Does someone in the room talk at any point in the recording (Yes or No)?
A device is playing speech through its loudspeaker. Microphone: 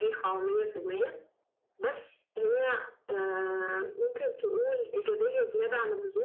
No